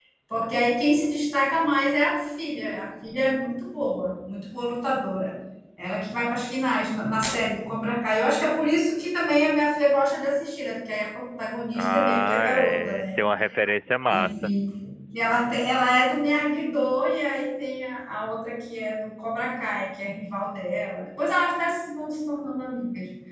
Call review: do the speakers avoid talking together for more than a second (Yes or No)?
No